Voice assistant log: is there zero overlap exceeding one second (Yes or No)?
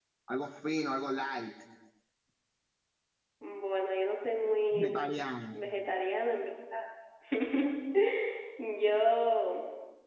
Yes